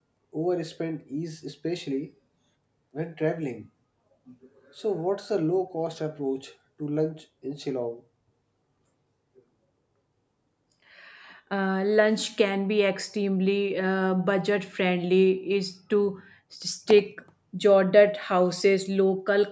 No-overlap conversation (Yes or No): Yes